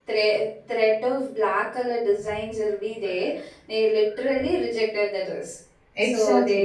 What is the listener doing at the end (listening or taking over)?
taking over